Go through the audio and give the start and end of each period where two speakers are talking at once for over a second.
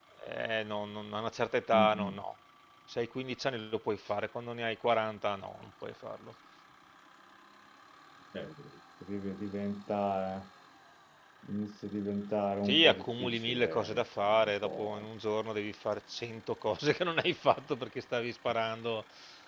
12.6-15.1

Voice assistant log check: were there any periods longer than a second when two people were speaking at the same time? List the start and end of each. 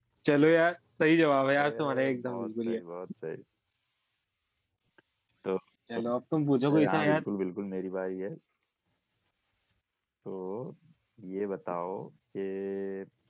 1.6-2.8

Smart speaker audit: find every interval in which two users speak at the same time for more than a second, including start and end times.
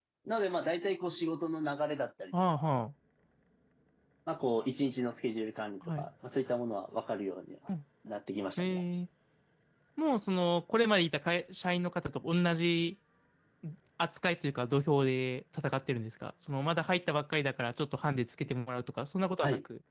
none

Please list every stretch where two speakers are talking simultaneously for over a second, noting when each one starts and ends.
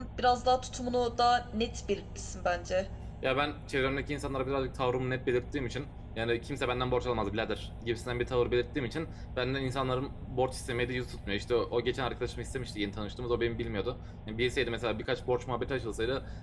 none

